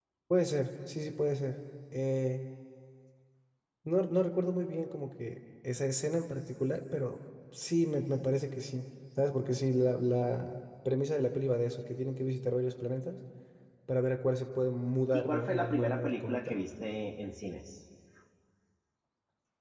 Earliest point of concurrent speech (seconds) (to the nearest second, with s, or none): 15 s